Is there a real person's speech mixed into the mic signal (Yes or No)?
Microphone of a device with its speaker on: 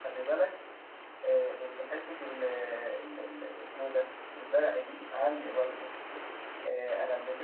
Yes